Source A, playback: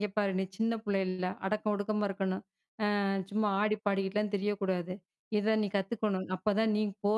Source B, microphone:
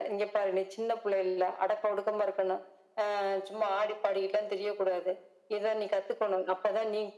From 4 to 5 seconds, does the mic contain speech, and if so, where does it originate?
echo only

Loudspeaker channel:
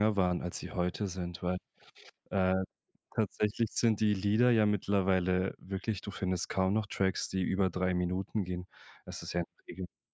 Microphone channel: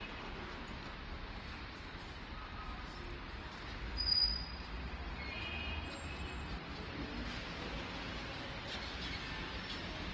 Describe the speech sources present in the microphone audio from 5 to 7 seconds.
neither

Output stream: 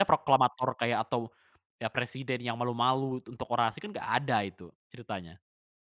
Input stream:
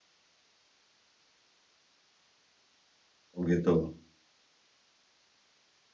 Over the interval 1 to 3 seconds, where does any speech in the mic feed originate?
neither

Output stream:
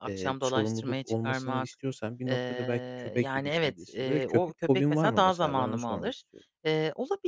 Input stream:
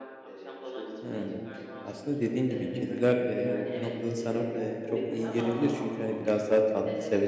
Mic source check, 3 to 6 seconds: both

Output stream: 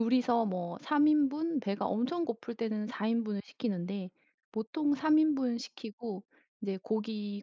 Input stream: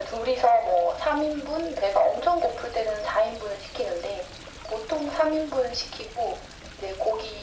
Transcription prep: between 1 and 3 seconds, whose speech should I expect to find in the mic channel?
echo only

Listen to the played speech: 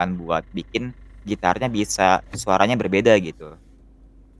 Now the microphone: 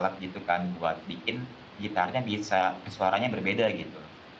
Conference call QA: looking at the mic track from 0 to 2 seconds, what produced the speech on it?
echo only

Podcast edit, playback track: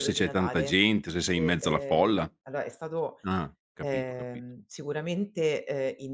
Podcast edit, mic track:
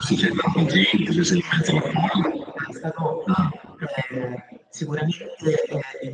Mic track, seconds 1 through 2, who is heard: echo only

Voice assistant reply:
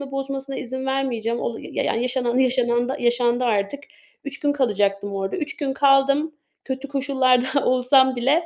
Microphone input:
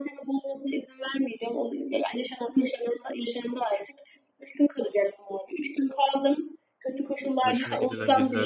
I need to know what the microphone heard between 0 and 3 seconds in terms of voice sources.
echo only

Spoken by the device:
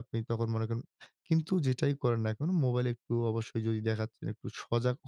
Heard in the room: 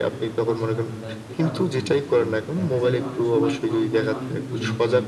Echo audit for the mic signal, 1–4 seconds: both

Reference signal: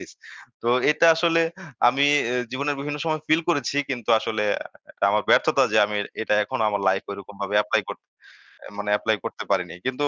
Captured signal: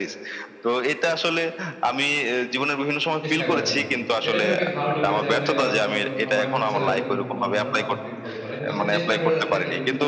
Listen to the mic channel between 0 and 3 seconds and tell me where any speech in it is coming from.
echo only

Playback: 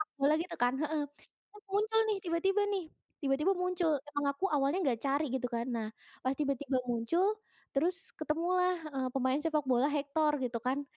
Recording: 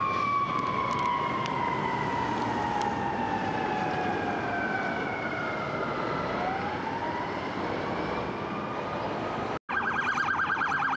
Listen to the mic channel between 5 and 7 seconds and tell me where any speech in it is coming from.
neither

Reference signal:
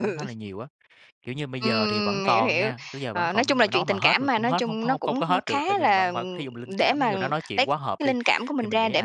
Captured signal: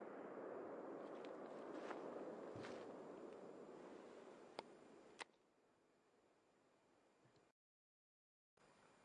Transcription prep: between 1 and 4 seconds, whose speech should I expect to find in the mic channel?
neither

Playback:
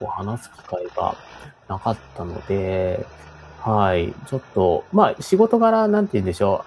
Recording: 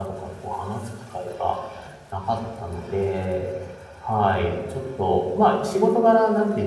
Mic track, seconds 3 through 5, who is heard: echo only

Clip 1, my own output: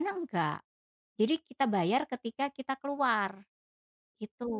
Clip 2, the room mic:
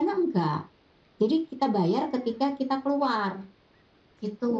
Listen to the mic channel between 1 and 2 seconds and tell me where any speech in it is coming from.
echo only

